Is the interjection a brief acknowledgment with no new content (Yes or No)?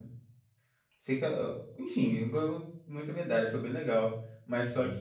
Yes